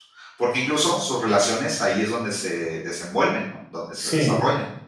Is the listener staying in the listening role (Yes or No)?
No